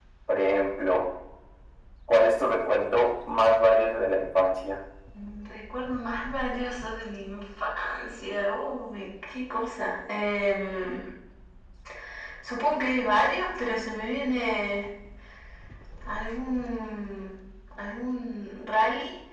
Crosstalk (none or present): none